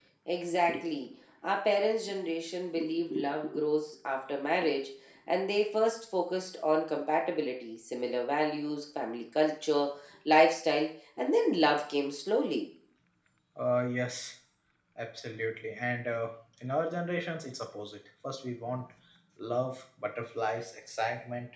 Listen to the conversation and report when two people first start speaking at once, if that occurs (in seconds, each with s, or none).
none